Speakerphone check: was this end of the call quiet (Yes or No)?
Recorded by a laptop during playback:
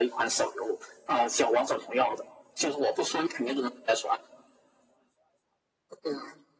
Yes